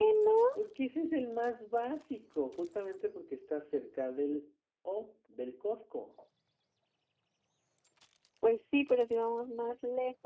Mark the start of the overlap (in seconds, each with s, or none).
none